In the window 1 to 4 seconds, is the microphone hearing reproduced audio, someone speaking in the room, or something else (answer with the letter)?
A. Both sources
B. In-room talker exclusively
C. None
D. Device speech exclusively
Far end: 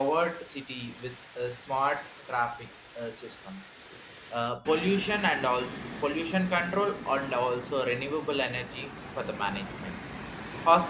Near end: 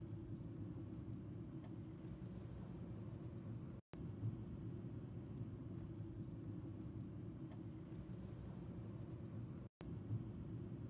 C